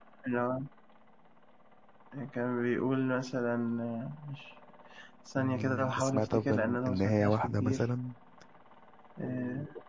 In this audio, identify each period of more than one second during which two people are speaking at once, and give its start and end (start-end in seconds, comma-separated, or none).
5.4-7.8